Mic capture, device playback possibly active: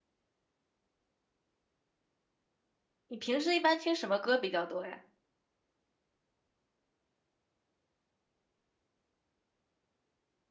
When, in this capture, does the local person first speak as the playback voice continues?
3.1 s

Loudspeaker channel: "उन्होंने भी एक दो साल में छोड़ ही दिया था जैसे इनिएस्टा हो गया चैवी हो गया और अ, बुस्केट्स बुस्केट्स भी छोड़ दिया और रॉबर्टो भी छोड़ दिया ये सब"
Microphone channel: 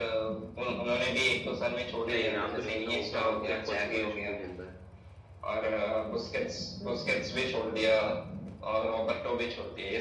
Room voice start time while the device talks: 2.1 s

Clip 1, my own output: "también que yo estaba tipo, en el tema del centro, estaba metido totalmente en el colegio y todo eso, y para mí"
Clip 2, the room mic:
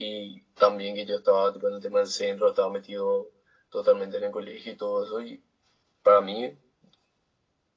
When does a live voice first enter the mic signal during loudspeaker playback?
none

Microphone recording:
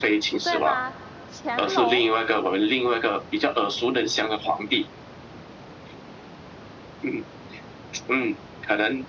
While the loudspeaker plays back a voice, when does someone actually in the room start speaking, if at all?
0.3 s

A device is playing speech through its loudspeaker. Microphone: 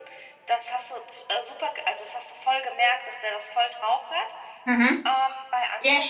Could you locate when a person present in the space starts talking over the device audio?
4.6 s

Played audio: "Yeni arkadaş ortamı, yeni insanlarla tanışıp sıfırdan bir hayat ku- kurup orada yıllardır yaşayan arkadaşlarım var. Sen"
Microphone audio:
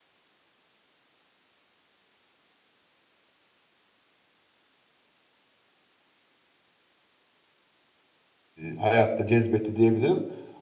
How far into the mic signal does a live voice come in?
8.7 s

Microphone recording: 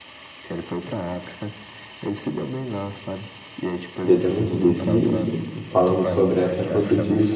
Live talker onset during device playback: 4.1 s

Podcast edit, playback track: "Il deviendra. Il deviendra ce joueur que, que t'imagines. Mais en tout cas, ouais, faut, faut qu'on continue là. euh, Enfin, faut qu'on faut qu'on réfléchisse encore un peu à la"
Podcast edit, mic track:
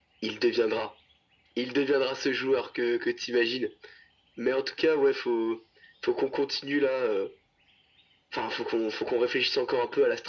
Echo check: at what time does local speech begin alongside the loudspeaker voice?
none

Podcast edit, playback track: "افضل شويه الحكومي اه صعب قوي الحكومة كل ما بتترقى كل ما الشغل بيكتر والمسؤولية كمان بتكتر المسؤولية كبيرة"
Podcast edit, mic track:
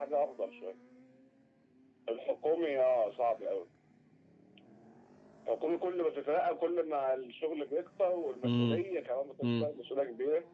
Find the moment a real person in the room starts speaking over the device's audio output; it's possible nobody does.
8.4 s

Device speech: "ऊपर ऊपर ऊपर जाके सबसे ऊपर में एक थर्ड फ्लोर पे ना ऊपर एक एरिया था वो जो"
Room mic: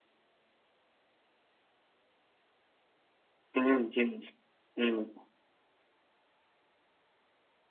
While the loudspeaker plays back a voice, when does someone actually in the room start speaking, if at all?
3.6 s

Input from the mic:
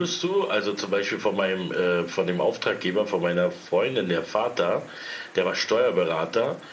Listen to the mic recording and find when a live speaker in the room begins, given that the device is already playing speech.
none

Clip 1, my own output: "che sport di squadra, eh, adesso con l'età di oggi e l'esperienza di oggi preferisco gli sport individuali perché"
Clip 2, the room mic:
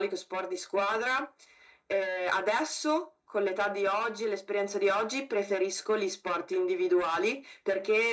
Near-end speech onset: none

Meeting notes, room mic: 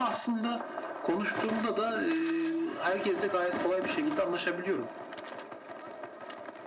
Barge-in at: none

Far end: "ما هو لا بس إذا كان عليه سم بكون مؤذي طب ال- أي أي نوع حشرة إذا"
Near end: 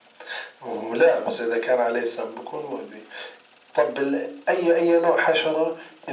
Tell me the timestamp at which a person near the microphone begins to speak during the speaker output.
none

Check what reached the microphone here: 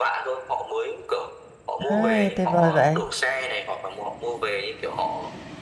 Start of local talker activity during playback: 1.9 s

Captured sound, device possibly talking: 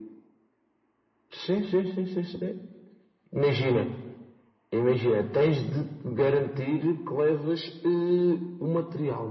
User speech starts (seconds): none

